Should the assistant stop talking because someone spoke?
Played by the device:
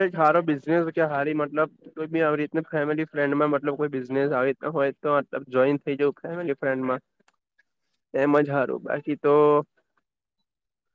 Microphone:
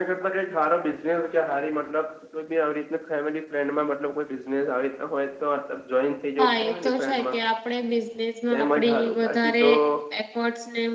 Yes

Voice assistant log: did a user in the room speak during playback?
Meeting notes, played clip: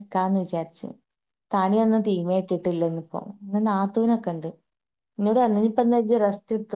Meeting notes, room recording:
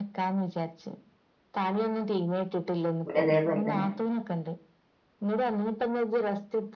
Yes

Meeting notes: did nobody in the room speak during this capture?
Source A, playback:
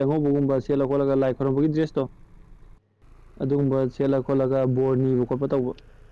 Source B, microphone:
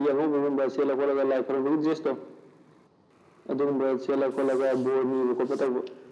Yes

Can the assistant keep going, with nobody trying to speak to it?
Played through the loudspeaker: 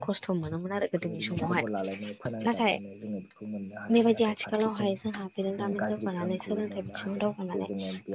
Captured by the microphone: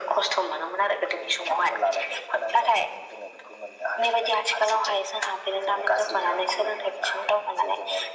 Yes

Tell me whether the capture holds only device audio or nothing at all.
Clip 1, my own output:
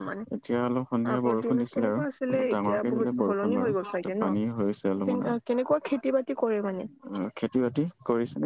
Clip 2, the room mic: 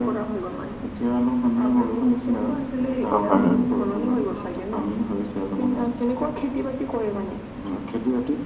No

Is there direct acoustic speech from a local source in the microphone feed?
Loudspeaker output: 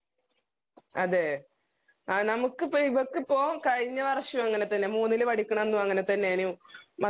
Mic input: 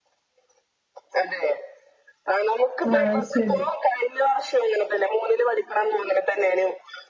Yes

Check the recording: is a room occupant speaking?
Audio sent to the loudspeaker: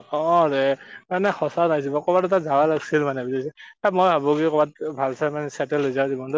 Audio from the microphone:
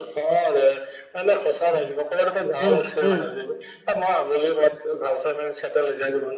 Yes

